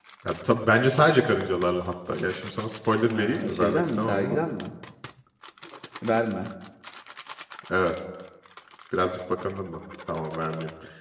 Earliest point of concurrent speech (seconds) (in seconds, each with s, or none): 3.1 s